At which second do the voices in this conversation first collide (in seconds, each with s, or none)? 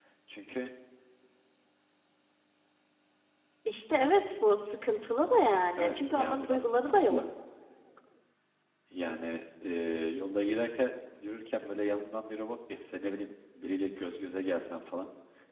5.8 s